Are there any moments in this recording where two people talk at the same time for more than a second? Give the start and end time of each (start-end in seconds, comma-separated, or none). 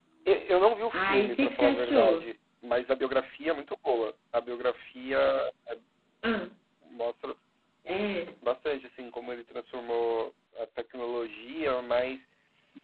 0.9-2.3